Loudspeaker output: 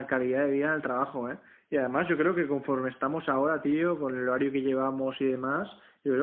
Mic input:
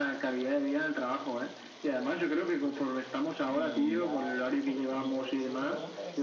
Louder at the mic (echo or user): echo